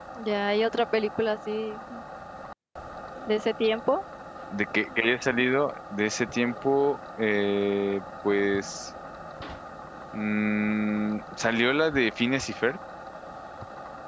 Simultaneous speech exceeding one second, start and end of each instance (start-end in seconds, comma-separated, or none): none